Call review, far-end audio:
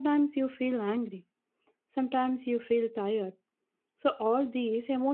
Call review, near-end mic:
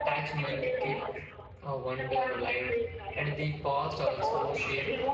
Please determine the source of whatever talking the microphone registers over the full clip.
both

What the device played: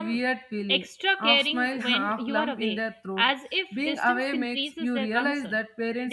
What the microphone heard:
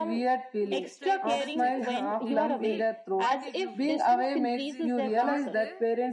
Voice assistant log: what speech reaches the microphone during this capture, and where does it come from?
both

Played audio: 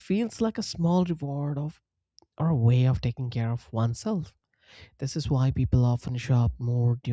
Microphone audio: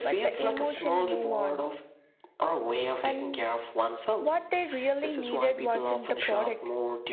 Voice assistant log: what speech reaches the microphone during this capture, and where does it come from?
both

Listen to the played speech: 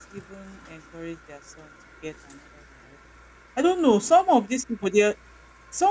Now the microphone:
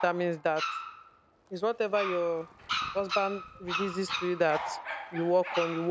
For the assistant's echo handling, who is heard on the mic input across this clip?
user only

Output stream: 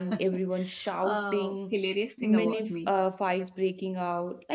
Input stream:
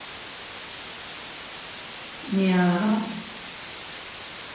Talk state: user only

